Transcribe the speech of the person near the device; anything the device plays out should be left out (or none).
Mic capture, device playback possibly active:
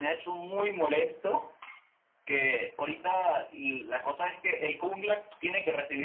none